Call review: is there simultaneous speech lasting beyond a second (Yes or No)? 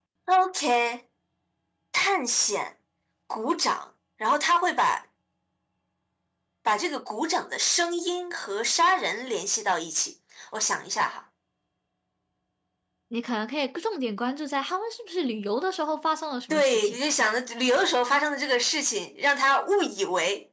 No